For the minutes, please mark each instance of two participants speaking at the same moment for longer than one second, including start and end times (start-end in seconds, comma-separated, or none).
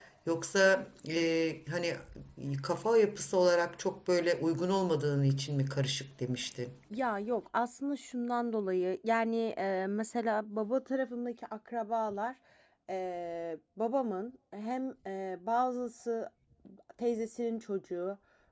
none